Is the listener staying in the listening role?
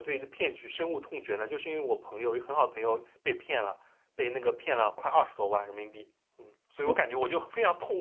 Yes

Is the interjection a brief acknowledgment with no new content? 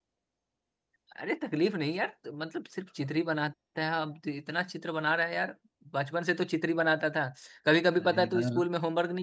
Yes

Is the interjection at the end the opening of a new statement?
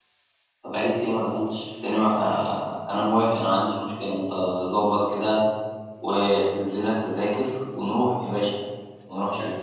Yes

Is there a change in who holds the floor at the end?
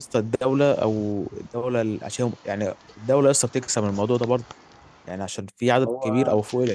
No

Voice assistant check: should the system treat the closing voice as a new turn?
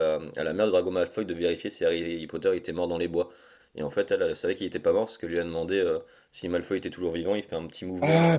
Yes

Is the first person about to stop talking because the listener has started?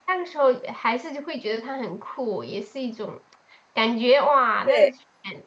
No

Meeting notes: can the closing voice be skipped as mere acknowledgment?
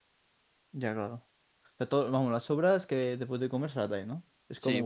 No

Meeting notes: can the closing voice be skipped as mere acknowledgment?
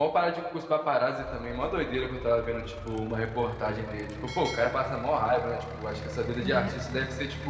Yes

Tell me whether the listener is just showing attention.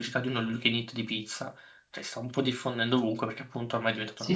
No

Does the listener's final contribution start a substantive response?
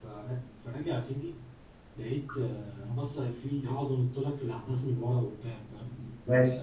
No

